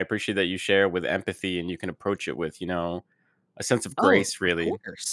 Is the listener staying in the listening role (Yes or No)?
No